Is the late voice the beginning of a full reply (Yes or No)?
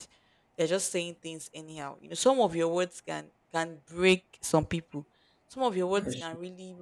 No